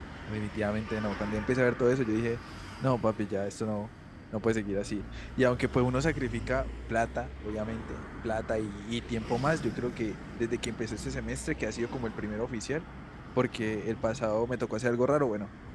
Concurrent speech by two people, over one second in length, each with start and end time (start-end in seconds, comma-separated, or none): none